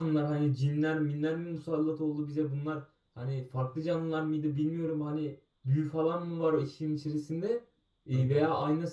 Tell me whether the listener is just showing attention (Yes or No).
Yes